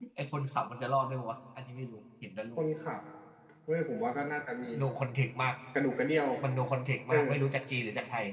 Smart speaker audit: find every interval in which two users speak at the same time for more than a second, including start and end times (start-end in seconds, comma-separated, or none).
none